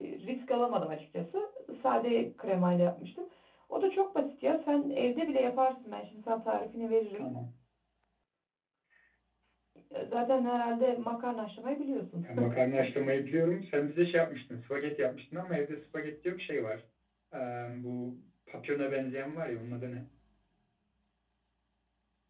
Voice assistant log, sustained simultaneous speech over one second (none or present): none